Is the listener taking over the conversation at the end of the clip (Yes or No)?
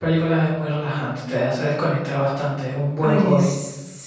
Yes